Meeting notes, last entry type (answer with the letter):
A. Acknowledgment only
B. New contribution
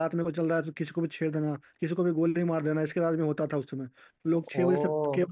A